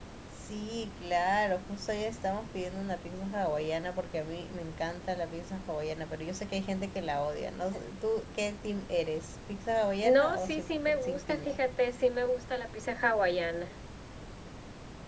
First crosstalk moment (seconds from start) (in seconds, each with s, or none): 10.0 s